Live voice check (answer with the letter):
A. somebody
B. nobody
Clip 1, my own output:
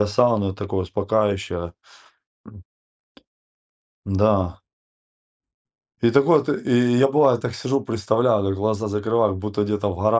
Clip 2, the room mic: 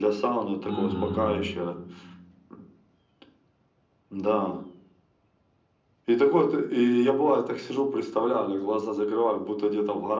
A